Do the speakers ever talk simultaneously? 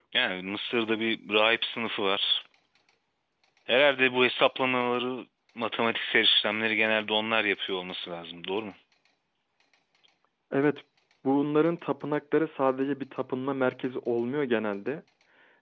No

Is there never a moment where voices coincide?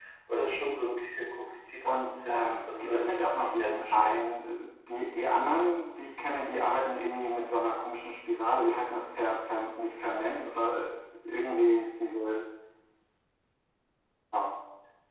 No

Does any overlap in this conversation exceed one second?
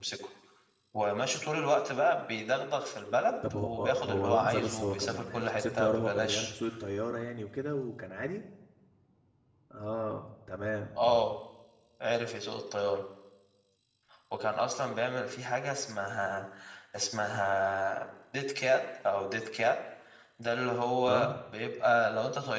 Yes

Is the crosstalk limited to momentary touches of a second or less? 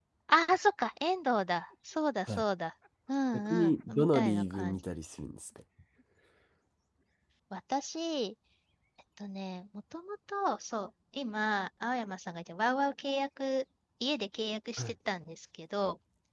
No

